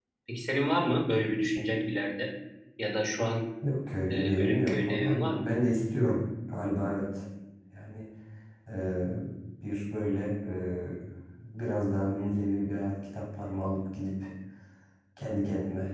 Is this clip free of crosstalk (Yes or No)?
No